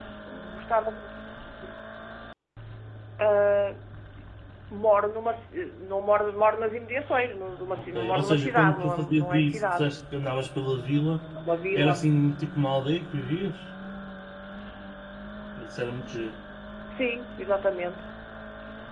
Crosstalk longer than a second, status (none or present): present